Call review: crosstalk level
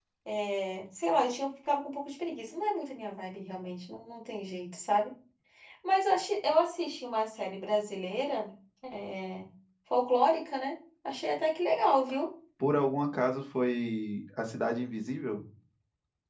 none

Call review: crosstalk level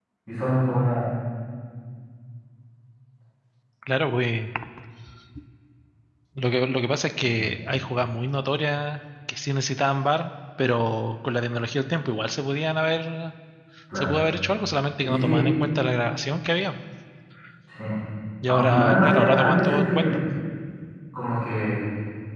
present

